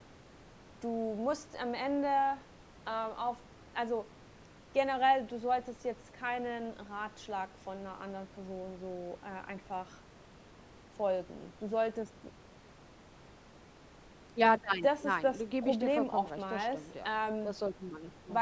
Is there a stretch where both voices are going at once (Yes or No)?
Yes